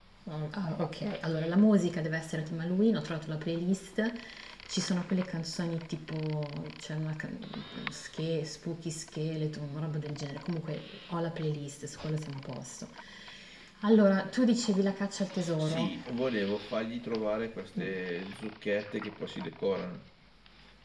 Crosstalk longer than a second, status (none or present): none